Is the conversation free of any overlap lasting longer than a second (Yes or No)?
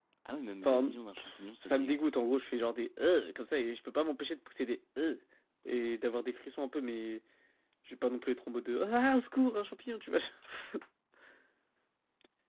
Yes